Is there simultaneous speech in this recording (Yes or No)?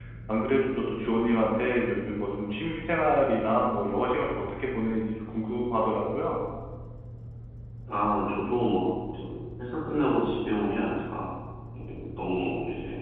No